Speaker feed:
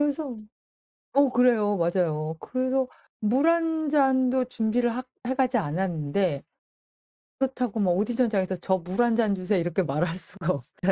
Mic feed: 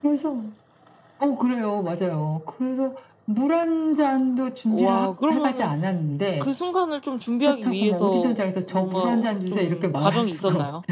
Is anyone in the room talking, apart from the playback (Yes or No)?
Yes